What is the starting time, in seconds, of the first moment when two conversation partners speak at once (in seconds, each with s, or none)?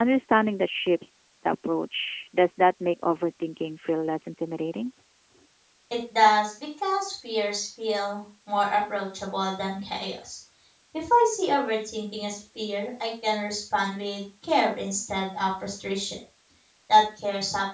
none